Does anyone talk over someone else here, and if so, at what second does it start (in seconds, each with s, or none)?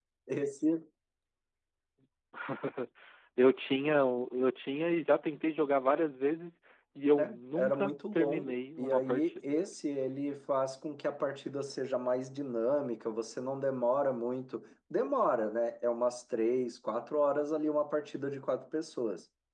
7.2 s